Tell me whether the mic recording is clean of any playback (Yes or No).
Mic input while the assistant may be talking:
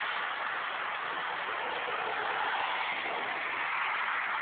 Yes